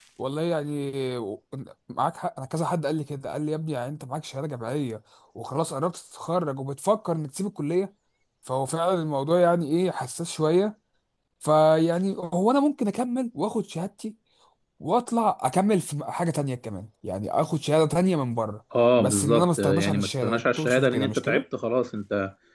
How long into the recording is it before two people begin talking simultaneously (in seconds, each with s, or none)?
19.0 s